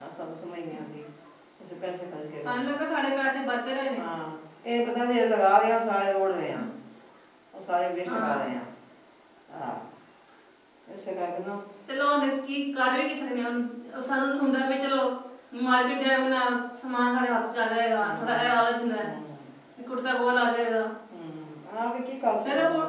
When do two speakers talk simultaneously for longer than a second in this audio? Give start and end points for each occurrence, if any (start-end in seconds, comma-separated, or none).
none